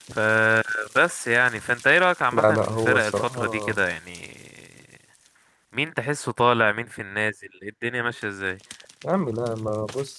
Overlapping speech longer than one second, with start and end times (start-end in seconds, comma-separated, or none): 2.3-3.8